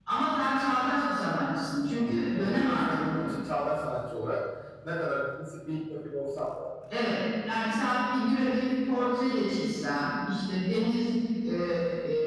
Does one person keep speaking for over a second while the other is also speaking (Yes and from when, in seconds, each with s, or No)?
Yes, from 2.0 s